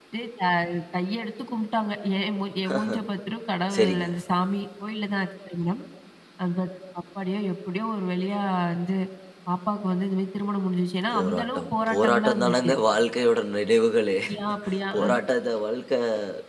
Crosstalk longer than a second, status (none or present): present